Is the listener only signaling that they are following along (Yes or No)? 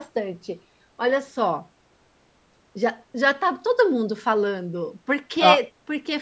Yes